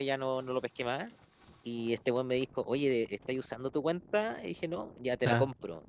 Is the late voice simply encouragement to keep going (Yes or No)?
Yes